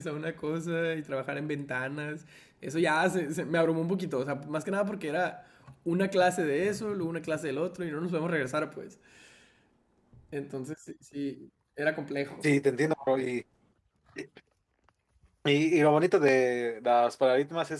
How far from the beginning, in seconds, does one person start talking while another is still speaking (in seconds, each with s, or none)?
none